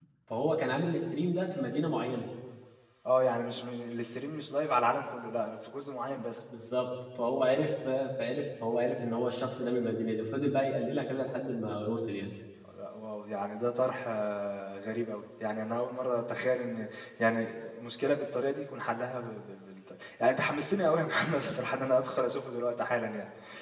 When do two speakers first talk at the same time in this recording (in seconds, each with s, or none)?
none